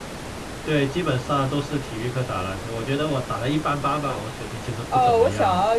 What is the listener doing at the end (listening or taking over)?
taking over